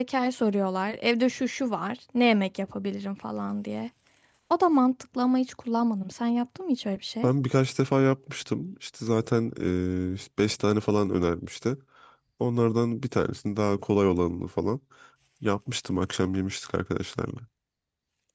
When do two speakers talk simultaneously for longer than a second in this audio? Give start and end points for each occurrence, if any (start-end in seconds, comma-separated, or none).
none